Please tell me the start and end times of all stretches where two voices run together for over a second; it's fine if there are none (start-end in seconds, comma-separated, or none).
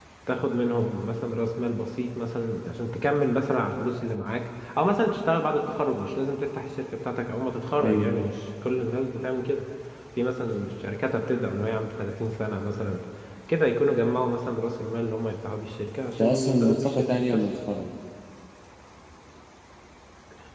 16.2-17.4